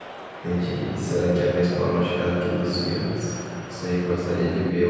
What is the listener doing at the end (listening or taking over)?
listening